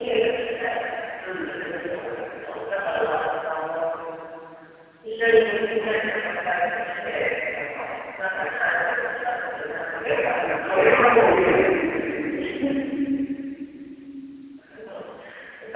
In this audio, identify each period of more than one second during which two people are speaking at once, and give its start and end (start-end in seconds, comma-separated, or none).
10.4-11.6